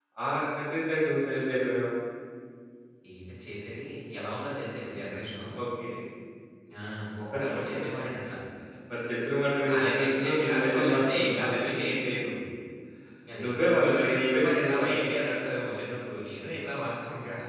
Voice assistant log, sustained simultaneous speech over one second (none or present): present